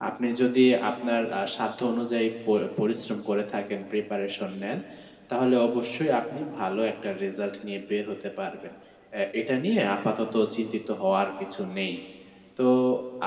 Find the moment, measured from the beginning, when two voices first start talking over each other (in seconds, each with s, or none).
none